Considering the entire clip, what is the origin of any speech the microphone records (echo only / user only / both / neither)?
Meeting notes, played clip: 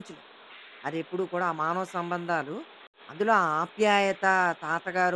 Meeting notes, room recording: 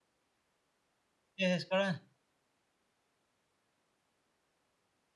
user only